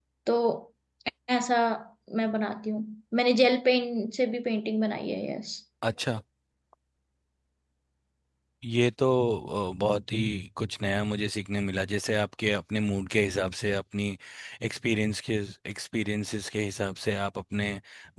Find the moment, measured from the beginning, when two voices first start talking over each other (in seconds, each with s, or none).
none